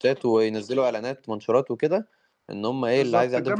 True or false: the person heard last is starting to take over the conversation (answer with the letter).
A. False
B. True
B